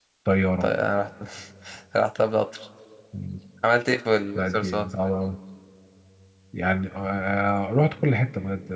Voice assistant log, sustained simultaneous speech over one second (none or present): none